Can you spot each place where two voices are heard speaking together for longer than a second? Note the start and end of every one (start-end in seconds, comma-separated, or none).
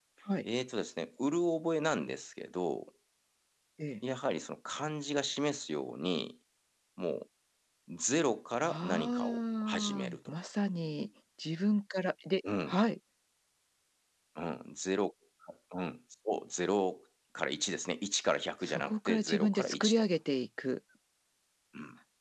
8.6-10.2, 18.7-20.0